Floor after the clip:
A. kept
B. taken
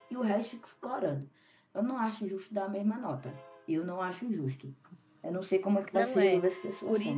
B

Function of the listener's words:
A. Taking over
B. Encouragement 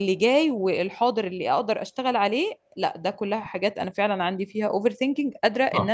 A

